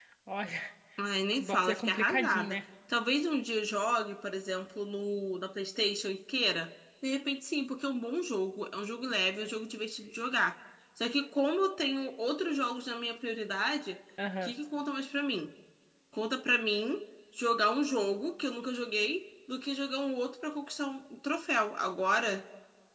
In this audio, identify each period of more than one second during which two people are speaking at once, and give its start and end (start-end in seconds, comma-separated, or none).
1.3-2.6